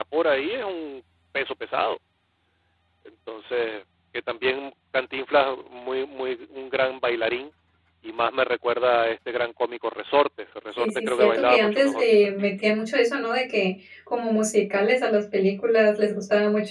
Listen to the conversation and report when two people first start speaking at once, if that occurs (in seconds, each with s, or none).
10.8 s